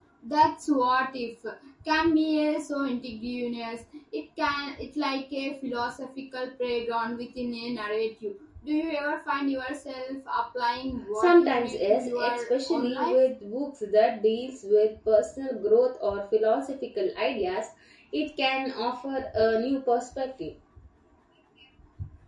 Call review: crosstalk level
present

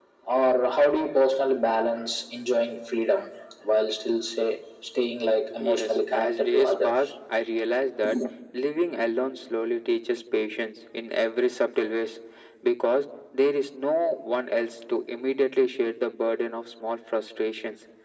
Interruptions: present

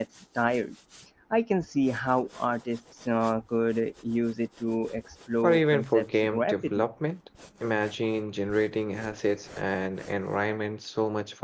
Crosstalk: present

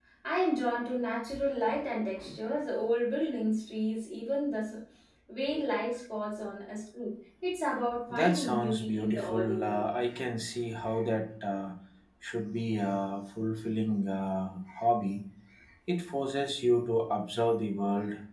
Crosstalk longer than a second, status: present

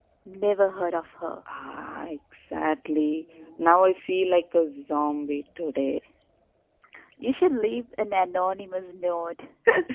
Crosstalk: none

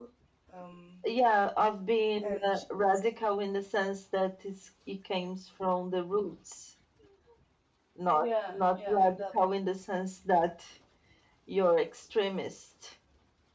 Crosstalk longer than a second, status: present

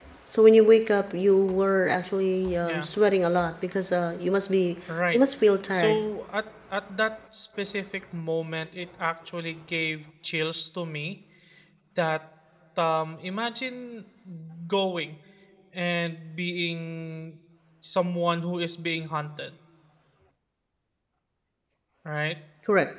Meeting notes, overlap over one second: none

